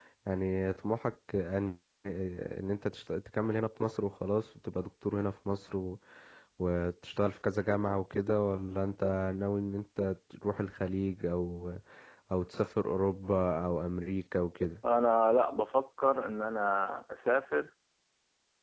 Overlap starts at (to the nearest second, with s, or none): none